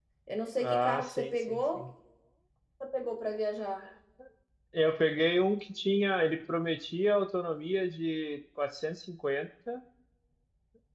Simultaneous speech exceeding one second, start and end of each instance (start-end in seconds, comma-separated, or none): 0.6-1.8